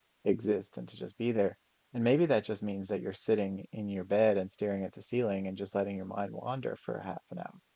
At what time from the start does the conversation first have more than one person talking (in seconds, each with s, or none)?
none